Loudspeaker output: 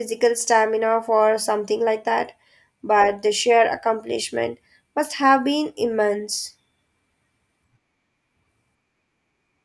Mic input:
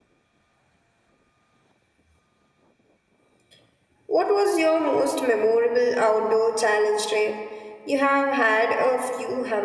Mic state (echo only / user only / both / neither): user only